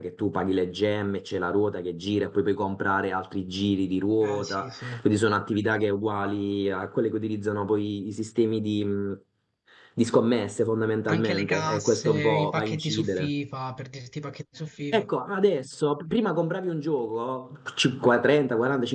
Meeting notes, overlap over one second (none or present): present